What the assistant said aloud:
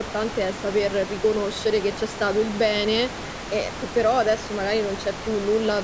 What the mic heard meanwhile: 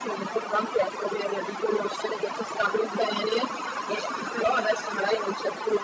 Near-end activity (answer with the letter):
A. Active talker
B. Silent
B